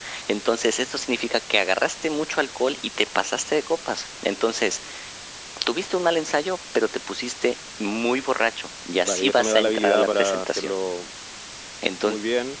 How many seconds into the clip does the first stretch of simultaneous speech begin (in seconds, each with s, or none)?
9.0 s